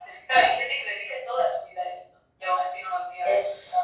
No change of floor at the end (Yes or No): No